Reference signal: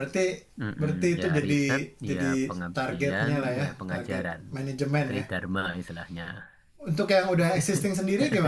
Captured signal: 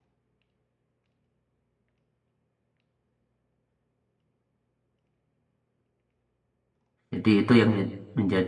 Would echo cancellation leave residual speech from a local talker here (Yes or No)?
Yes